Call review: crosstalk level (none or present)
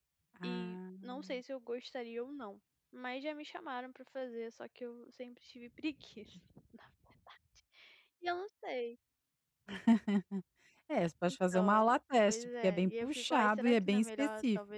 present